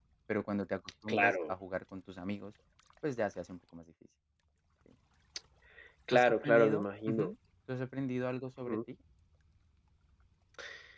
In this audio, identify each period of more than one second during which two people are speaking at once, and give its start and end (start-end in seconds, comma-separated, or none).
6.1-7.3